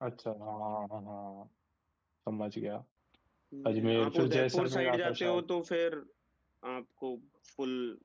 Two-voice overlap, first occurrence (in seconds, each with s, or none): 3.7 s